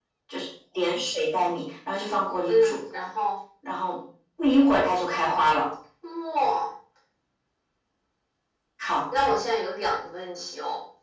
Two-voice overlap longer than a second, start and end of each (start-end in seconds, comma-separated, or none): none